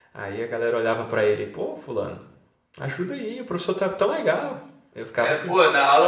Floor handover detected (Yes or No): Yes